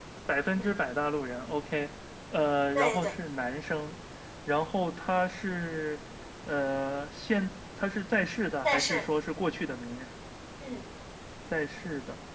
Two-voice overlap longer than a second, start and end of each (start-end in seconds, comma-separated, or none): none